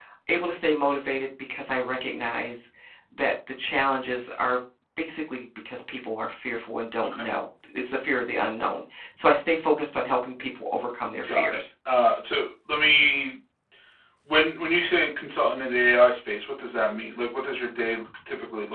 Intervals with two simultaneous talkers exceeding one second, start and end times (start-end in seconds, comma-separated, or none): none